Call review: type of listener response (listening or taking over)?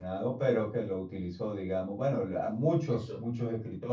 listening